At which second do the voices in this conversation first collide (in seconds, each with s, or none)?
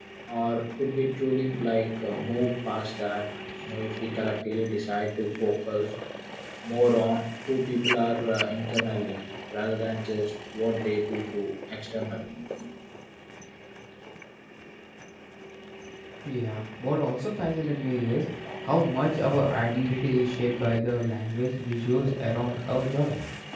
none